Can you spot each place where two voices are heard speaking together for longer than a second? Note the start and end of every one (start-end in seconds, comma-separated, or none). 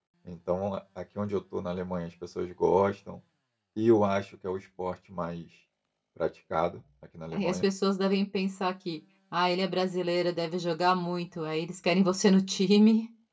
none